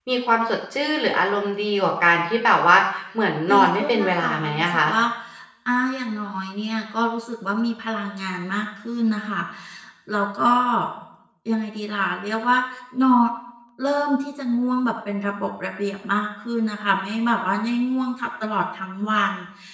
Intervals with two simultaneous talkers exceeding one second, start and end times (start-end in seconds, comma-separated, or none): 3.5-4.9